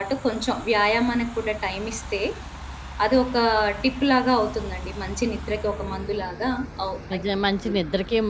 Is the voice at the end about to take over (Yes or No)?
Yes